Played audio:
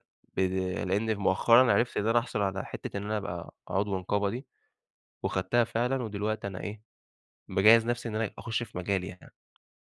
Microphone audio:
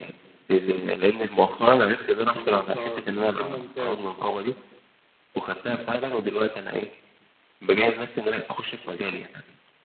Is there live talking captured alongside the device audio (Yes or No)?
Yes